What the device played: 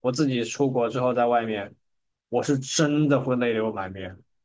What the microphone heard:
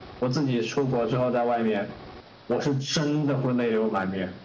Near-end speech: none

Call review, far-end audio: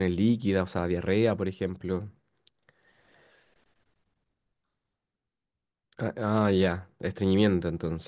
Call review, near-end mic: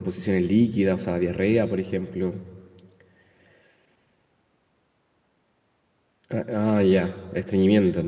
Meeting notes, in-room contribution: none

